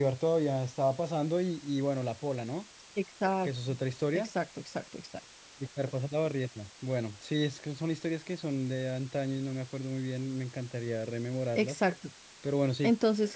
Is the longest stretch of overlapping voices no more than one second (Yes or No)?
Yes